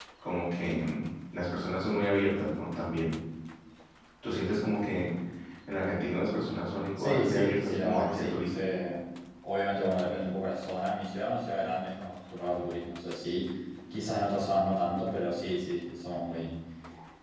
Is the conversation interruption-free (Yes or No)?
No